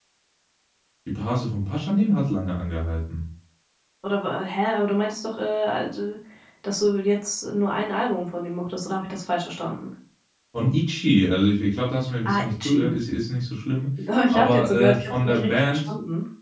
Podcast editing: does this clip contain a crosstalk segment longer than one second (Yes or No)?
Yes